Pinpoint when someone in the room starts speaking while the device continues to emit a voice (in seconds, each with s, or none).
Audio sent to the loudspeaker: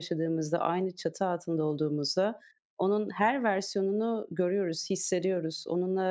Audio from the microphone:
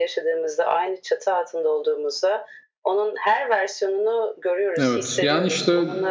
4.8 s